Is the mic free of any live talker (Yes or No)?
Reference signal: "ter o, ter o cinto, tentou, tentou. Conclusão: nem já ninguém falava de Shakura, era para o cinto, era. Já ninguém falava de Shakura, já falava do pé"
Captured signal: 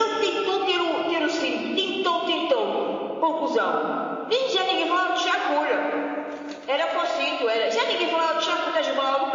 Yes